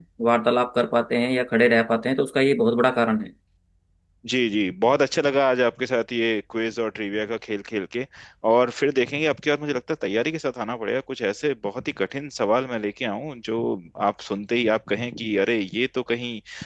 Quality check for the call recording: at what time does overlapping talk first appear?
none

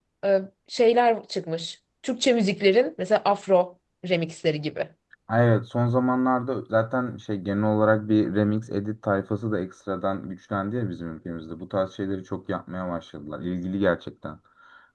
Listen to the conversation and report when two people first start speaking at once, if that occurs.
none

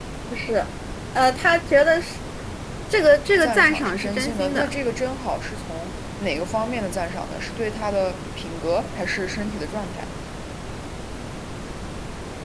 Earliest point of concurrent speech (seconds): 3.4 s

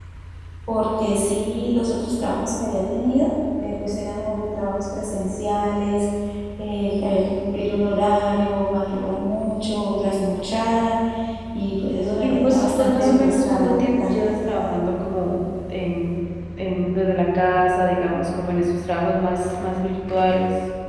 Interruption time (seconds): 12.2 s

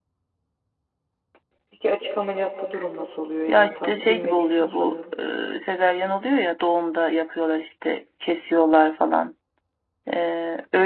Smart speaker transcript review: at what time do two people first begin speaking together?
3.5 s

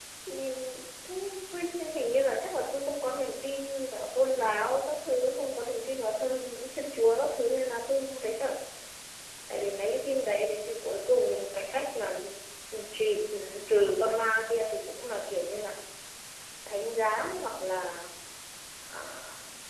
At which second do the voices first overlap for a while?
none

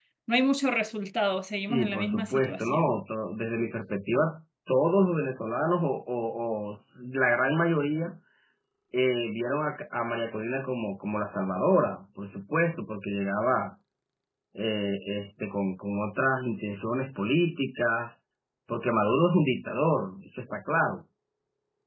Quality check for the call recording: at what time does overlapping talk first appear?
1.6 s

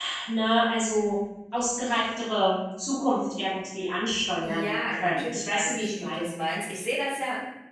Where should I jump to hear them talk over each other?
4.4 s

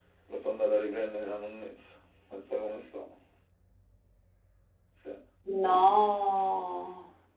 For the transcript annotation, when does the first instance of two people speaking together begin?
none

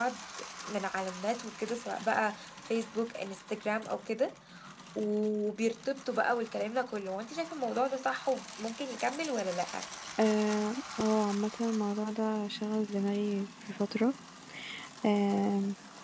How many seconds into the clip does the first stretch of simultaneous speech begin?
none

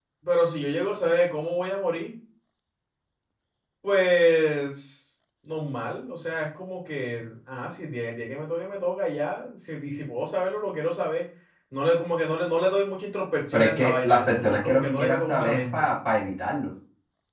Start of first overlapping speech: 13.5 s

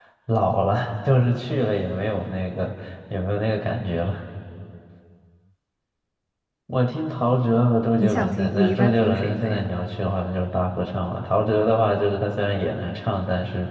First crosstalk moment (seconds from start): 8.0 s

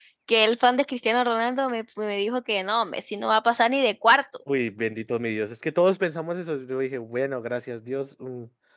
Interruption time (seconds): none

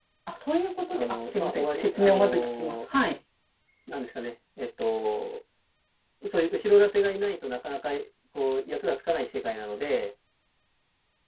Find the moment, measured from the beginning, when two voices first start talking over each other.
0.9 s

